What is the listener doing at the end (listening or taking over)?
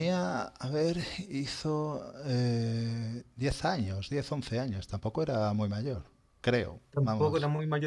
taking over